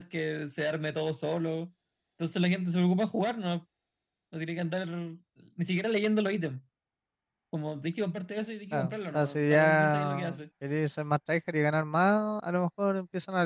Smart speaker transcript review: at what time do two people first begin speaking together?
8.7 s

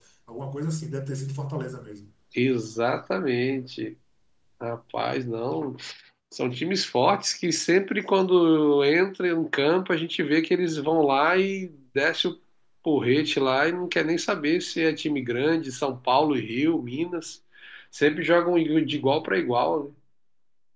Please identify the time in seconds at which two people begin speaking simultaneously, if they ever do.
none

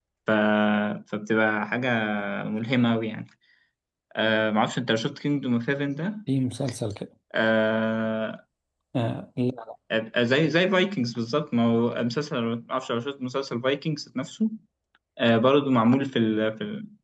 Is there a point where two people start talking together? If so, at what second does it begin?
none

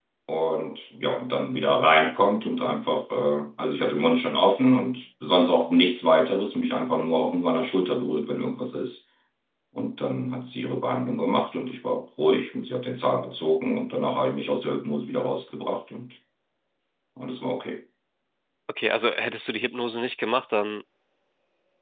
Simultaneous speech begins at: none

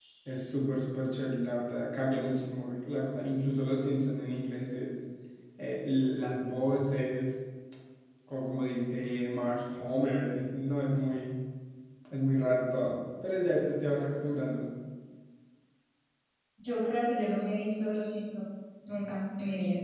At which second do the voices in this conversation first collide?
none

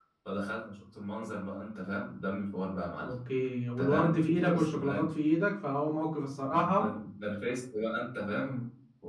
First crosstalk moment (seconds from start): 3.8 s

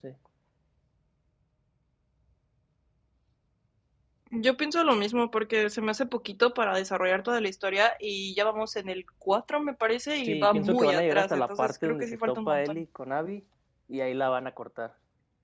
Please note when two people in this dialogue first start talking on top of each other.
10.2 s

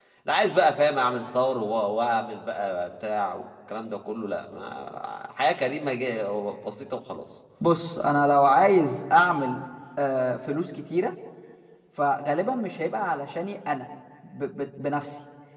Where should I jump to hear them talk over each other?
none

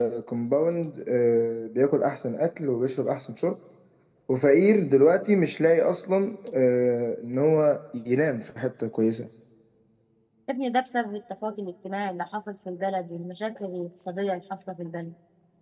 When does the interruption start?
none

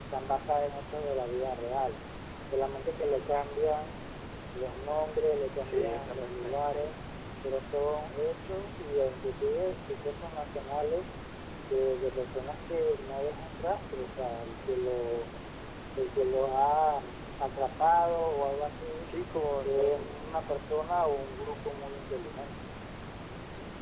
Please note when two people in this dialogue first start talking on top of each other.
5.6 s

